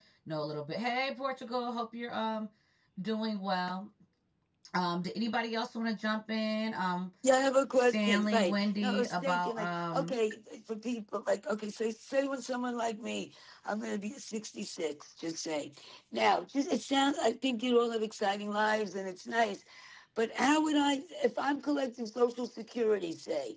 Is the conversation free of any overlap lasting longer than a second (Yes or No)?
No